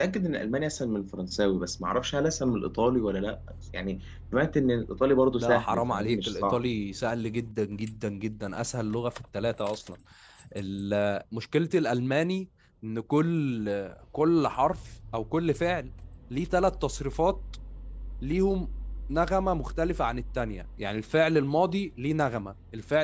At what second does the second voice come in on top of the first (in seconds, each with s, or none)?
5.4 s